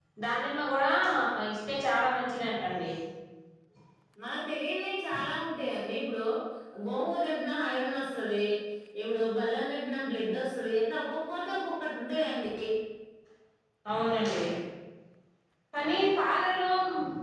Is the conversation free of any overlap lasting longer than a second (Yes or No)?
Yes